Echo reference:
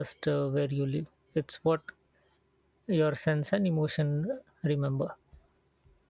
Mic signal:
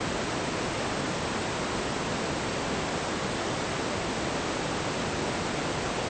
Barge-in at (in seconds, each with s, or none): none